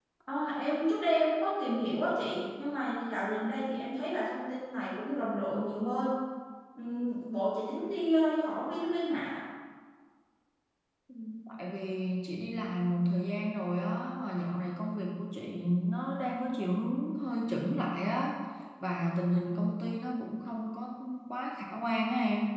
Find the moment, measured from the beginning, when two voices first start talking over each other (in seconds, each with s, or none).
none